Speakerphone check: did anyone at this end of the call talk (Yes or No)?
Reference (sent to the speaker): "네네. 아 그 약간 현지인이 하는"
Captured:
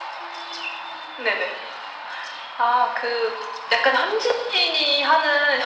No